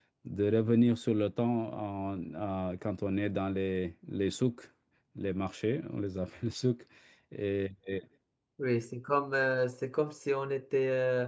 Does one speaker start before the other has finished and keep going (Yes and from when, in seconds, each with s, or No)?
No